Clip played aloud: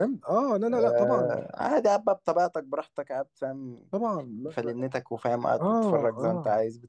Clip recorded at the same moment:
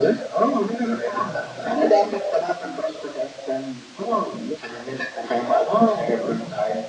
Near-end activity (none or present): none